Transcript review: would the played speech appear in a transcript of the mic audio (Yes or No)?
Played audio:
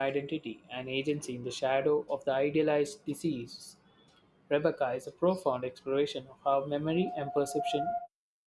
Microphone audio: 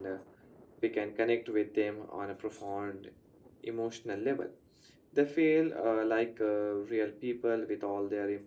No